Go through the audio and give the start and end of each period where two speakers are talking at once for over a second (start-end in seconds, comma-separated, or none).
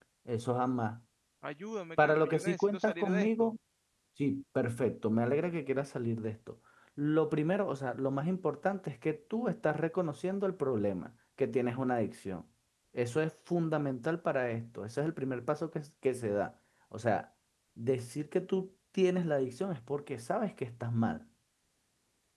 2.0-3.5